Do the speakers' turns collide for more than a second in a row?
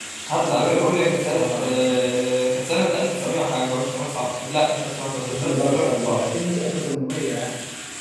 Yes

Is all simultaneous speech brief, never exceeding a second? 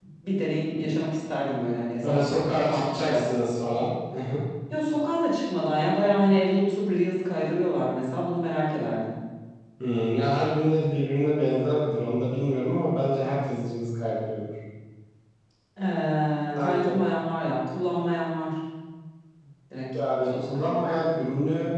No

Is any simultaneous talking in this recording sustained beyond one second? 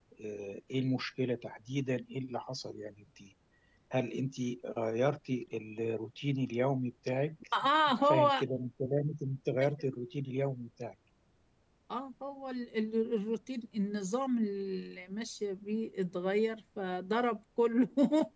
No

